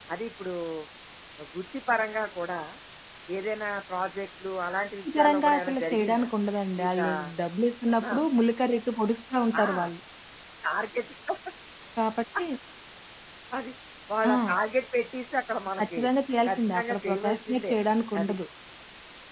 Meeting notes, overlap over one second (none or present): present